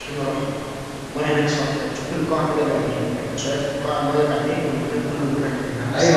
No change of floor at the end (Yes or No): No